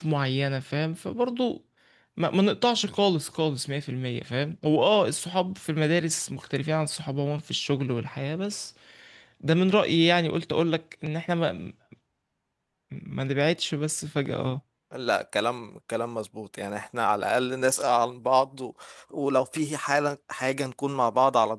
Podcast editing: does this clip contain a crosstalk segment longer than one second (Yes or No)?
No